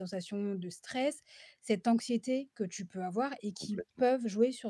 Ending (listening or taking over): listening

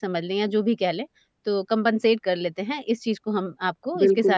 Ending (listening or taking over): taking over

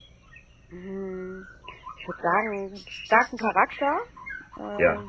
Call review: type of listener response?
listening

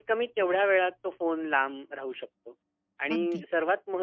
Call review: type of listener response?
listening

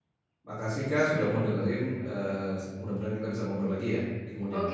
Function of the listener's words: taking over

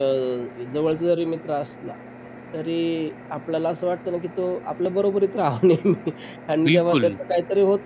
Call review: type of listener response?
listening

